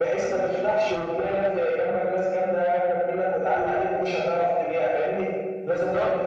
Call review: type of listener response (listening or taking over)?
listening